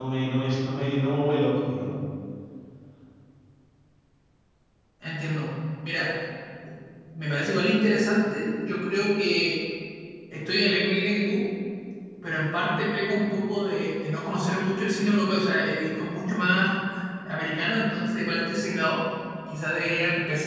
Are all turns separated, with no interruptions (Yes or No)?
Yes